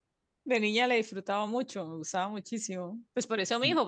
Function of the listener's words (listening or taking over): listening